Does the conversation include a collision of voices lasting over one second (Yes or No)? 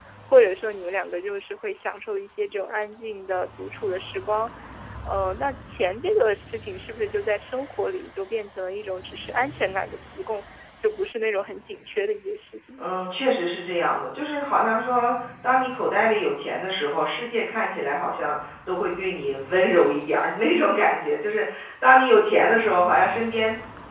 No